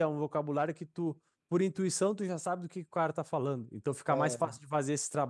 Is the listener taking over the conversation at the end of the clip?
No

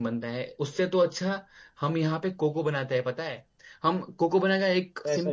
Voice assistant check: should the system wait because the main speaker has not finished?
Yes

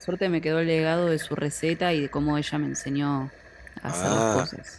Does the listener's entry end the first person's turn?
Yes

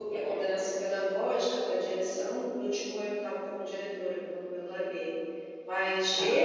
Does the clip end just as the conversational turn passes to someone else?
No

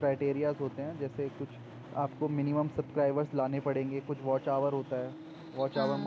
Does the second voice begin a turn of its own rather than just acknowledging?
No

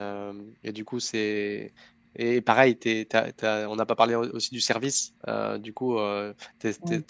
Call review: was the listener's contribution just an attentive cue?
Yes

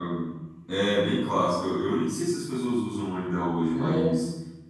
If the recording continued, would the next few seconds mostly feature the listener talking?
No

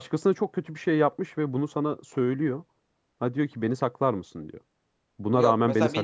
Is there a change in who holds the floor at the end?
Yes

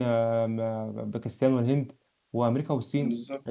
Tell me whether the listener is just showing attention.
Yes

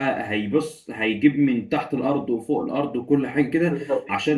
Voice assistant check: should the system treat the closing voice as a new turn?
No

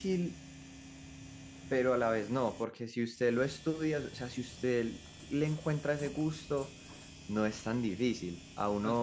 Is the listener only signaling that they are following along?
Yes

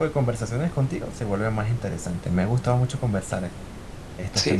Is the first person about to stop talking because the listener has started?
Yes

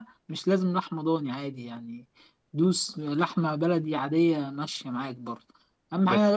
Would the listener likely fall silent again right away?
Yes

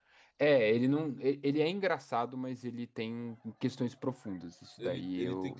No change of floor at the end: No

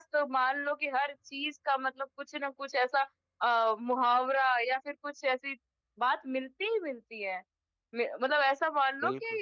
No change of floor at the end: Yes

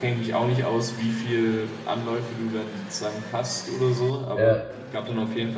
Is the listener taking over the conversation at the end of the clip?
No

